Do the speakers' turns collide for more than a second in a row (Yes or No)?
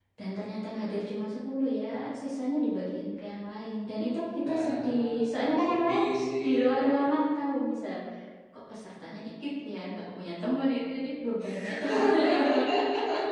Yes